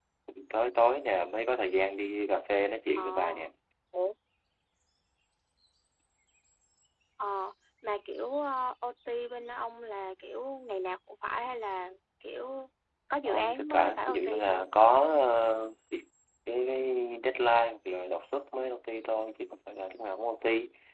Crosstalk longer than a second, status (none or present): present